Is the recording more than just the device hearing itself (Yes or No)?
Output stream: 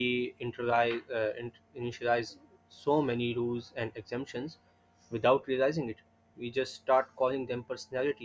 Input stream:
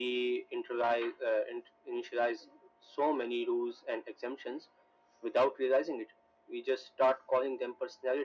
No